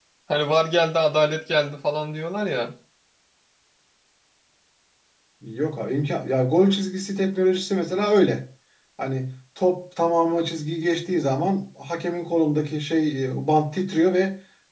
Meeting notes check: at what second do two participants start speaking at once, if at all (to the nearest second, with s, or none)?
none